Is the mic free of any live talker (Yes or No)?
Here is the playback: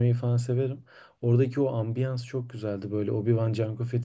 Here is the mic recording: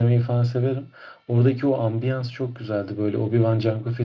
Yes